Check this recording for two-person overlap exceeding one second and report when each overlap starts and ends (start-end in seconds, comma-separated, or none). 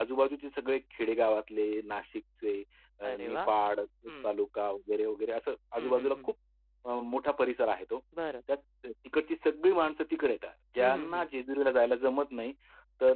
none